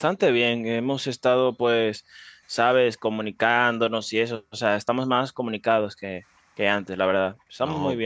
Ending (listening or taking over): taking over